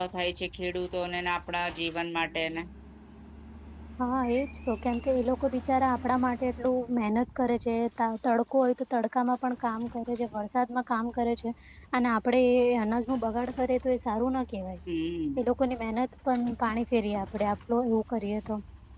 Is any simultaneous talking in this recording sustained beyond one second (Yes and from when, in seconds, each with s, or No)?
No